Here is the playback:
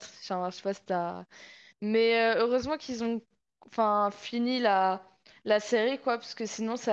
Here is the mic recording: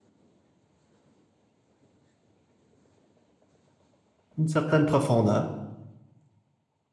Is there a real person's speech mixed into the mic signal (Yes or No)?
Yes